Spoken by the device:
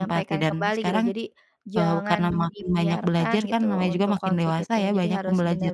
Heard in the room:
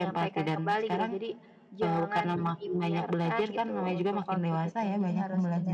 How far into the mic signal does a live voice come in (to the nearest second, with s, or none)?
none